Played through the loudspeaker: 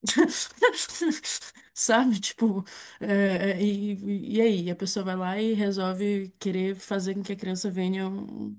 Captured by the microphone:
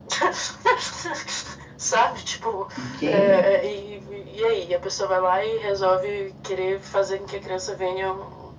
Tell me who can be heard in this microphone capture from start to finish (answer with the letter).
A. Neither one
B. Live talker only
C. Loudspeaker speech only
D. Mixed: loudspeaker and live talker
D